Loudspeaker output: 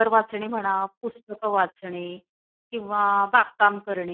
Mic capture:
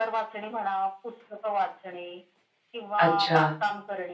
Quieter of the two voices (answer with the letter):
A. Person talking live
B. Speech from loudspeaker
B